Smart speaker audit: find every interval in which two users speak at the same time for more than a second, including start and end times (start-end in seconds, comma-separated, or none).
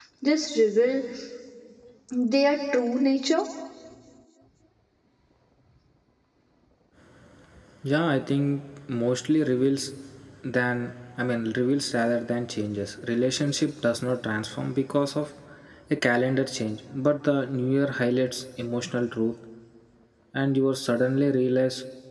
none